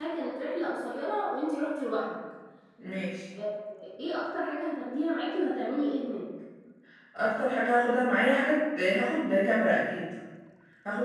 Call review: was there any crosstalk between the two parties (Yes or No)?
No